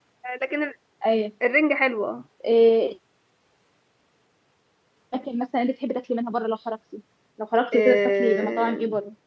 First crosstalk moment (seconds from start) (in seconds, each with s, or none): 7.7 s